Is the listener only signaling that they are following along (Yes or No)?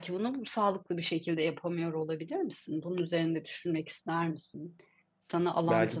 No